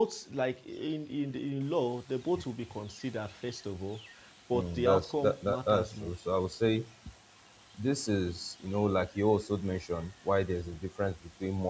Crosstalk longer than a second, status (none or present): present